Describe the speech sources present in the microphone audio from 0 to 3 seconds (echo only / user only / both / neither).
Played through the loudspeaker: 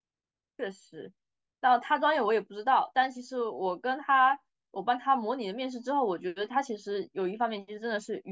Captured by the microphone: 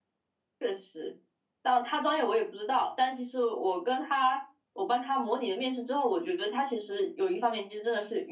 echo only